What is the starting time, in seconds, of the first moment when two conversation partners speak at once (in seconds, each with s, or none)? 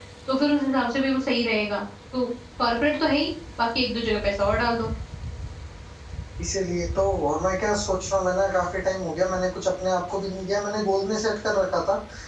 none